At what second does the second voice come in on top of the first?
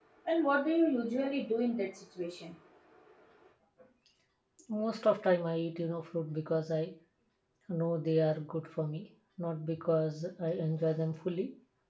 none

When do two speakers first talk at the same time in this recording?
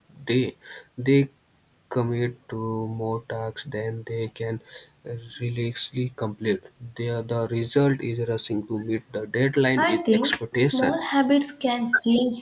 9.8 s

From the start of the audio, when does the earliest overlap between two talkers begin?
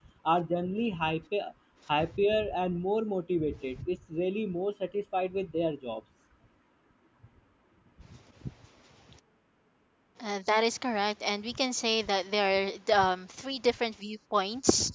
none

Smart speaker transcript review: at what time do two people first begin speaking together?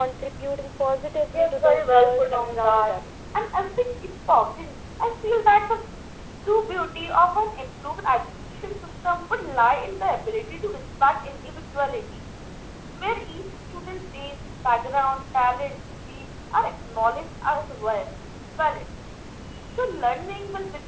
1.3 s

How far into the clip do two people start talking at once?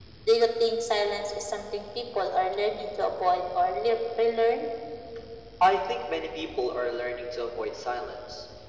none

